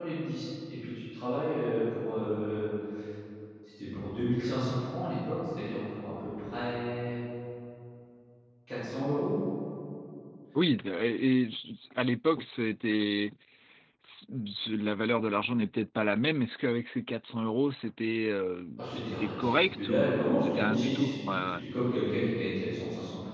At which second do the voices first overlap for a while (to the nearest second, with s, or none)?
19 s